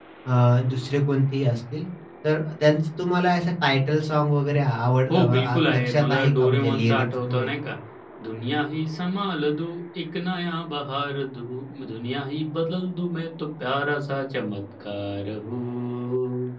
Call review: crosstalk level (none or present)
present